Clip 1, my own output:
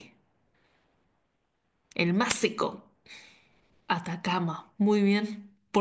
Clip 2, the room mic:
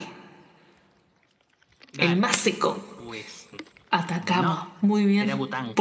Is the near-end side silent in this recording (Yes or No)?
No